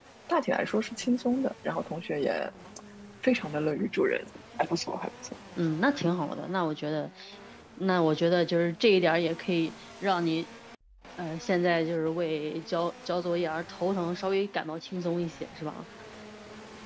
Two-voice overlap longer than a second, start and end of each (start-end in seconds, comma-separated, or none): none